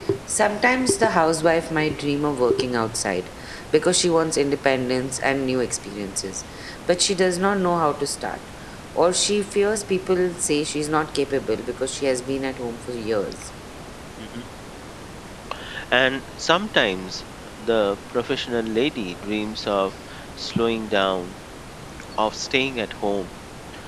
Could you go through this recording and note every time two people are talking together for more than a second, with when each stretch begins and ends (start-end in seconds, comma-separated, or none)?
none